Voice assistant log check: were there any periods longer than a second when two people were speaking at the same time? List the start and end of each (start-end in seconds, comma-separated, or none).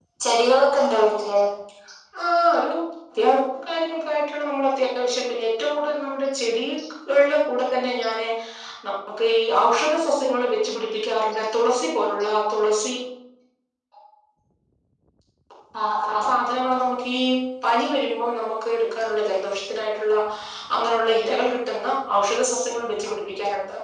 none